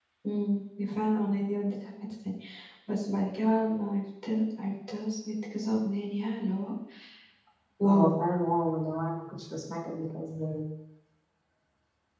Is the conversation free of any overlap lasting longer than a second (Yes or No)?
Yes